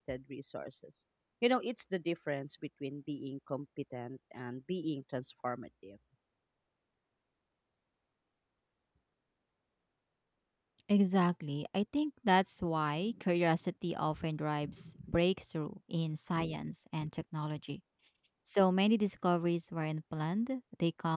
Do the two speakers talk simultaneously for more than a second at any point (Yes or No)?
No